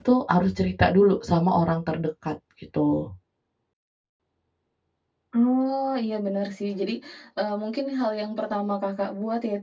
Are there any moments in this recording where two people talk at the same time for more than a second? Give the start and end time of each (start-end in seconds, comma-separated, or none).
none